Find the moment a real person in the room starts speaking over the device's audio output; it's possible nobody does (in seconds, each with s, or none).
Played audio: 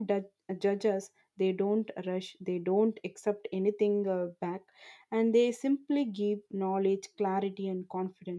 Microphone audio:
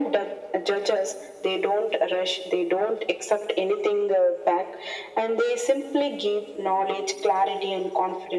none